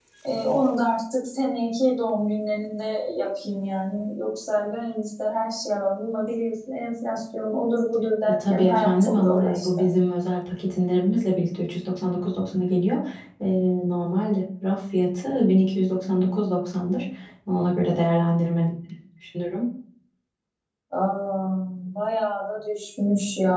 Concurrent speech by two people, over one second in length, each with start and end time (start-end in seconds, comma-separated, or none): 8.3-9.8